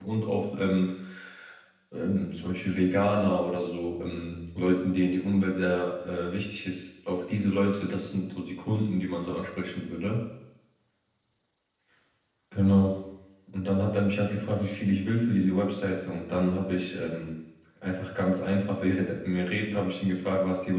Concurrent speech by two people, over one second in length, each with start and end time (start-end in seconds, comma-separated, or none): none